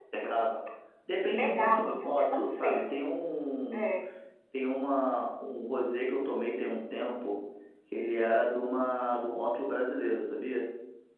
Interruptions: present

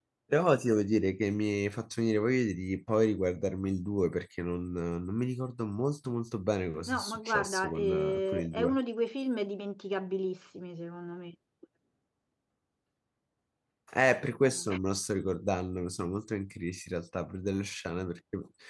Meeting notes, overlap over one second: present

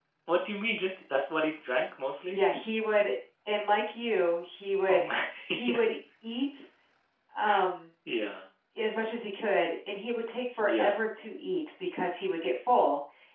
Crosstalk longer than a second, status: none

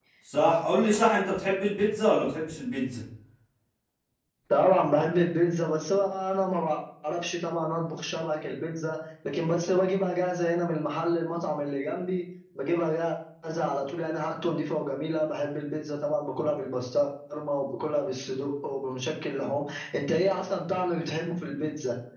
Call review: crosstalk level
none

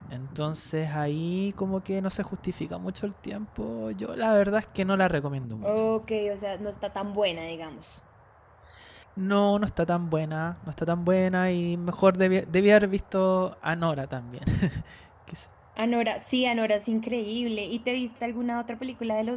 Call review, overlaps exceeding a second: none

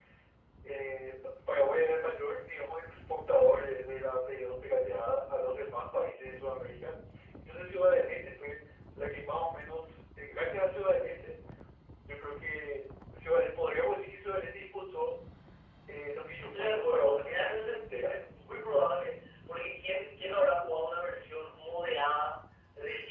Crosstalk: present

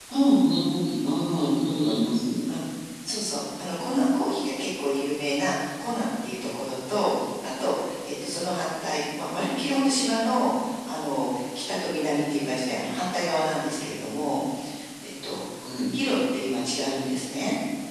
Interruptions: none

